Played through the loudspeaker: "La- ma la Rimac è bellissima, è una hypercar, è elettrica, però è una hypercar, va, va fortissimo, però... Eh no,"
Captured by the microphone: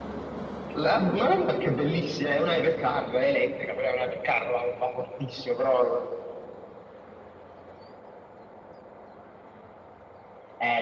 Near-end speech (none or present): none